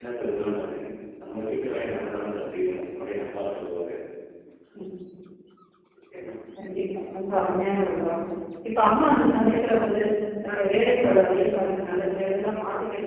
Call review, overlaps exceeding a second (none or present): none